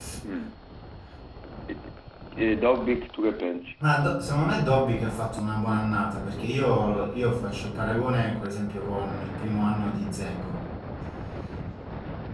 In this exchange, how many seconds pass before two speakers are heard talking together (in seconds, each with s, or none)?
none